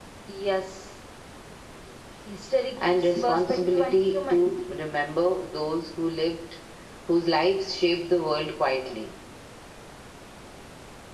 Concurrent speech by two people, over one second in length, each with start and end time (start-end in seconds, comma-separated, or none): 2.8-4.5